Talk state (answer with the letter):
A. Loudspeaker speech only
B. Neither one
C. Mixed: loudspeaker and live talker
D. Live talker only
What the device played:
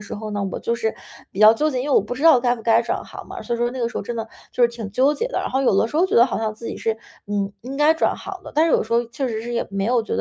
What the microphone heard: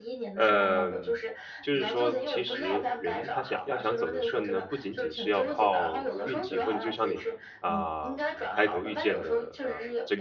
C